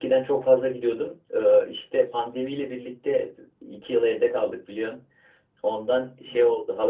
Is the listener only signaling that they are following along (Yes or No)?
Yes